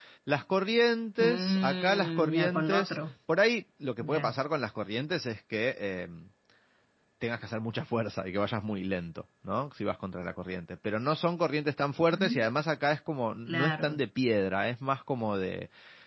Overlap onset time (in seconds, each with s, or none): 1.2 s